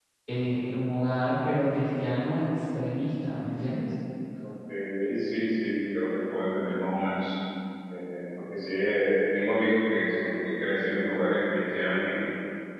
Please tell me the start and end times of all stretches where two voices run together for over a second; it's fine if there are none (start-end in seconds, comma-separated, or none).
none